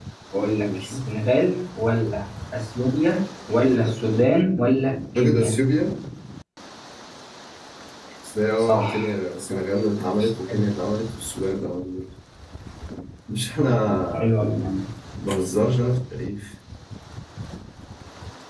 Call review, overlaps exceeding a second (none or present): none